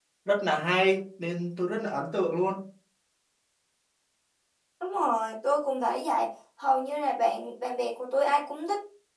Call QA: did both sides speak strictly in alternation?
Yes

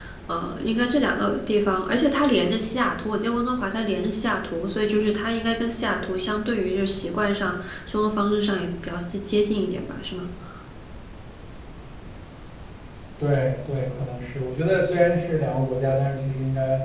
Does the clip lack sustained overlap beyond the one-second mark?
Yes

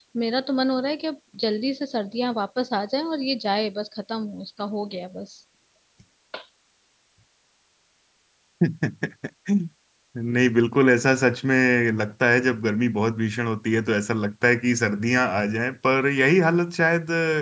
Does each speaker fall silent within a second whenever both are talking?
Yes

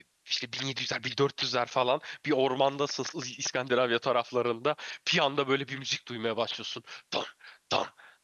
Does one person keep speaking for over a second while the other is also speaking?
No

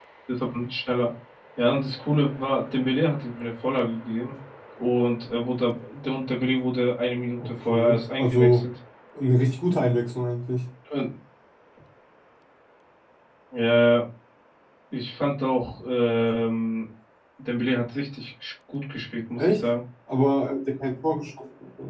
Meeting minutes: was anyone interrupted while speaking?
Yes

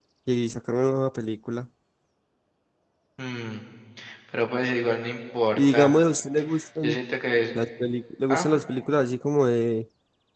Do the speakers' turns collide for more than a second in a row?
No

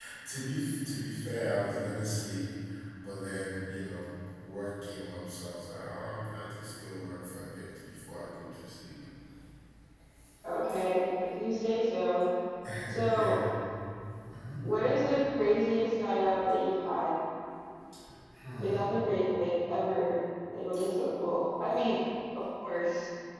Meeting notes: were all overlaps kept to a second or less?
Yes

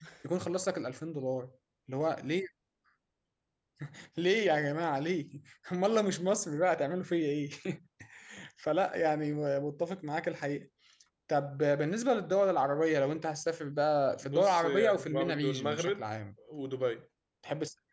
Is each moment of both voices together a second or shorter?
No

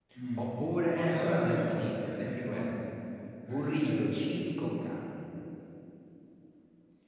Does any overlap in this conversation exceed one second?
Yes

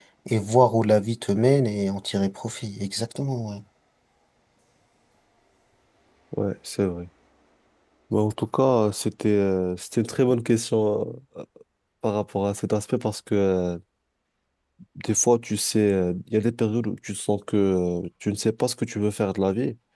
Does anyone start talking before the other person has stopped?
No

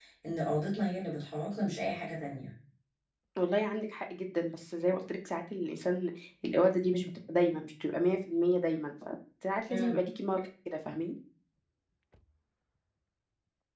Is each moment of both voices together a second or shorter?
Yes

